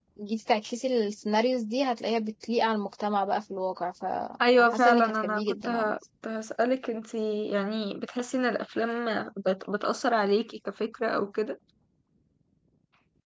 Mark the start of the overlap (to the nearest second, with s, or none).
4 s